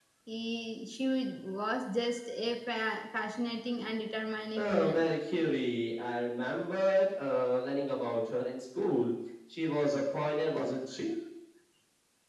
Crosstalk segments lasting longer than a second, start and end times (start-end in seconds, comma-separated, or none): none